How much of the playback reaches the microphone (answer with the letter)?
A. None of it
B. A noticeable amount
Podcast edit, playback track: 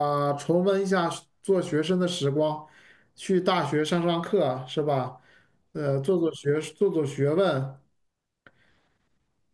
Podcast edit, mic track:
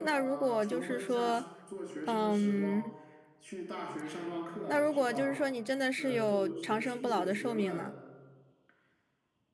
B